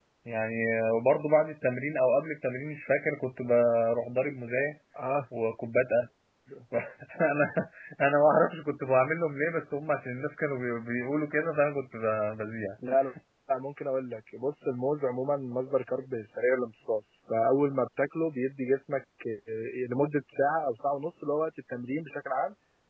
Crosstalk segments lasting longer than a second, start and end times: none

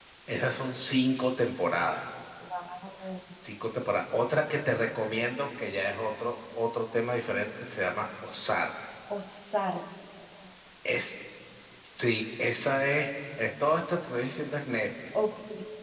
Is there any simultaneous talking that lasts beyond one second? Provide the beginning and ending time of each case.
none

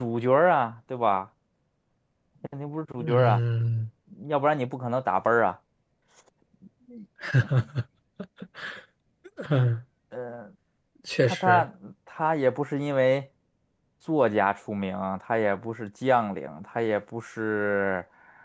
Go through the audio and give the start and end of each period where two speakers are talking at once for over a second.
none

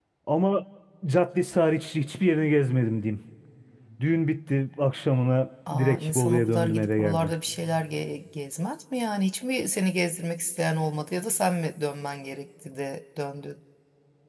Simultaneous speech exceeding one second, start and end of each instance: 5.7-7.3

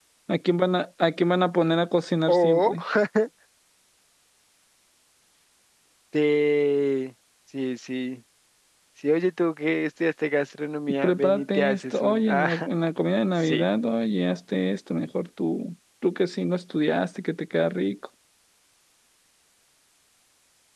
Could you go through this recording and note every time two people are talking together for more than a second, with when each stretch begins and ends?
11.0-12.7

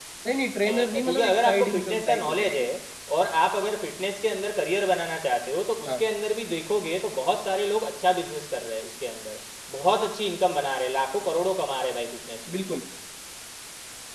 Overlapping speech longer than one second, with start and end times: 0.7-2.7

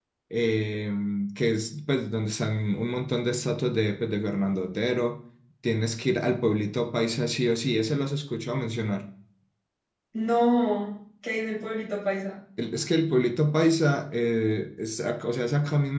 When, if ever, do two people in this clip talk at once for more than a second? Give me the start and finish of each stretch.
none

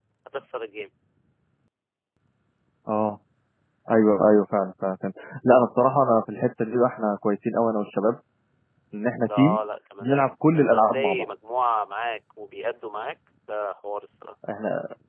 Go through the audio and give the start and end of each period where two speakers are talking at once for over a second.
10.0-11.2

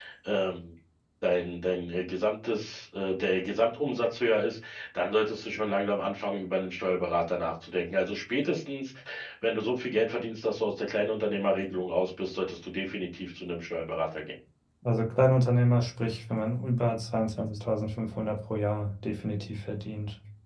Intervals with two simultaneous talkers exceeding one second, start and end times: none

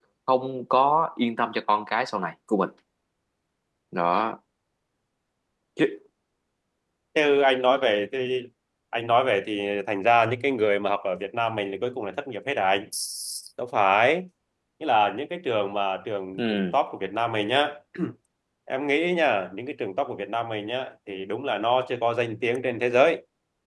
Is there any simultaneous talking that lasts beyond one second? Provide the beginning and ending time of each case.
none

